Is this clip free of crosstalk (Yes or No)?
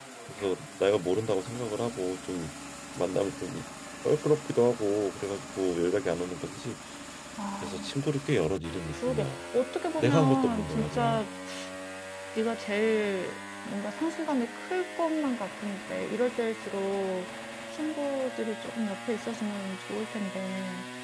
No